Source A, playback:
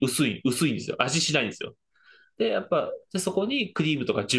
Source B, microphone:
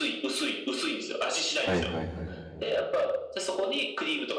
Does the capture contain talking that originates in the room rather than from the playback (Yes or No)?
Yes